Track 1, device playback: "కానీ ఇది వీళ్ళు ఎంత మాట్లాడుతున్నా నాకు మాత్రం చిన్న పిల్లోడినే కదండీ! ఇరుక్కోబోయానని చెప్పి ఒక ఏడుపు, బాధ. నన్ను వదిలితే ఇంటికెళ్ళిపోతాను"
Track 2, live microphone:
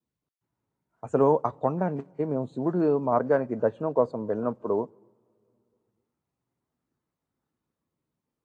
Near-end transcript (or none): అసలు ఆ కొండ అండి మేము శివుడు మార్గానికి దర్శనం కోసం వెళ్ళినప్పుడు,